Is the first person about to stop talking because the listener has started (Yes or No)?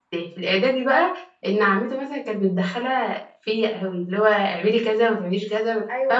Yes